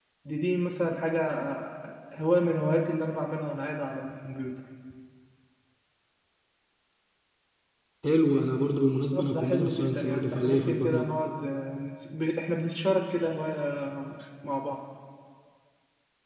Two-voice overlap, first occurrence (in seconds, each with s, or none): 9.1 s